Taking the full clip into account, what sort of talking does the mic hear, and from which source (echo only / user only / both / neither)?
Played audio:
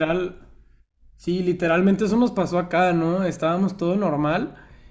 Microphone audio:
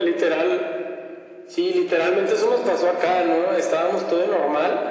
echo only